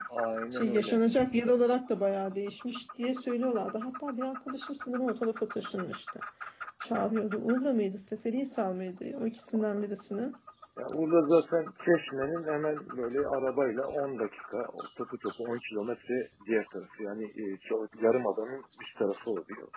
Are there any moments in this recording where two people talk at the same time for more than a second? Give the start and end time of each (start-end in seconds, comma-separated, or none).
none